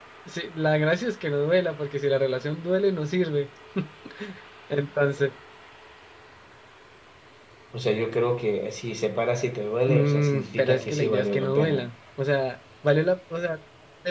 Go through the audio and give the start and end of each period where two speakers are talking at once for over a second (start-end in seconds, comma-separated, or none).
9.9-11.9